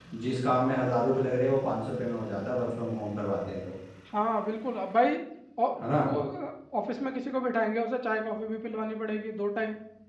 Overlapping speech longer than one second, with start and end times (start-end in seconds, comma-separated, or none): none